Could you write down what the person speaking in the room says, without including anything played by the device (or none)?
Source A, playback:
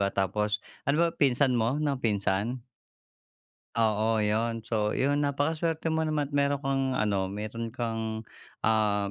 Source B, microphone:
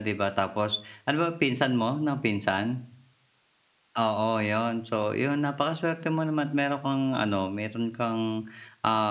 none